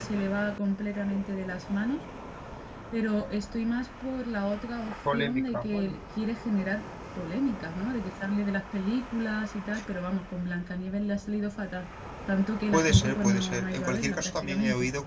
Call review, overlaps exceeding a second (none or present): present